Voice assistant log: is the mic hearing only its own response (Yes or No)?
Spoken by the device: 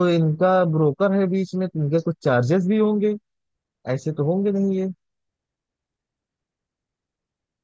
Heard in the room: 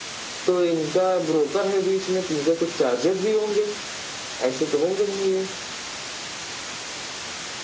Yes